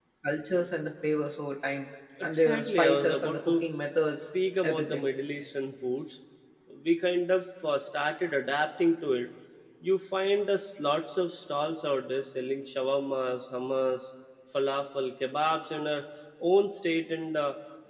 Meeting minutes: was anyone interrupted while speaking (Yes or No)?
Yes